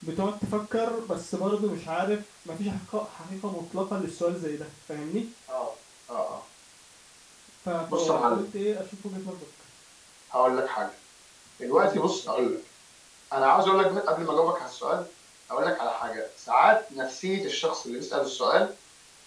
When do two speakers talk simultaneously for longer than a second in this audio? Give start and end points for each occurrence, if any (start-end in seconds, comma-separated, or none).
none